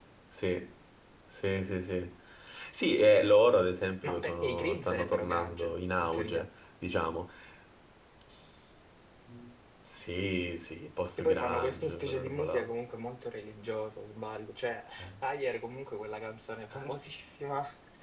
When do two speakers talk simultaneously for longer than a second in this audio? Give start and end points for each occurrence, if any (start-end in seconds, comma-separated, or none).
4.0-6.5, 11.2-12.7